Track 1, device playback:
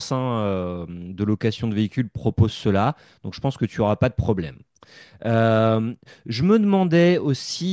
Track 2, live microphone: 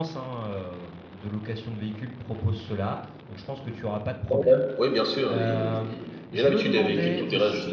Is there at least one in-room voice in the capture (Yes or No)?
Yes